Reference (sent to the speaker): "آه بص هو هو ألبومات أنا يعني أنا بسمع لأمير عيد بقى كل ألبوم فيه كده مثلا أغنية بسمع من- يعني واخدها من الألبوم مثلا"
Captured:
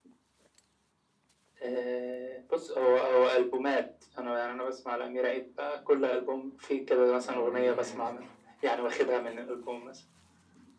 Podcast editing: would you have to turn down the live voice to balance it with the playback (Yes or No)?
No